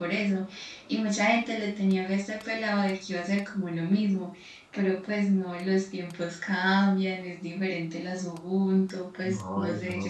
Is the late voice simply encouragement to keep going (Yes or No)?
No